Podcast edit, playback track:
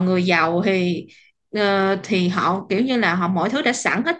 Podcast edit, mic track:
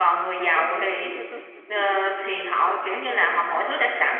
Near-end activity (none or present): present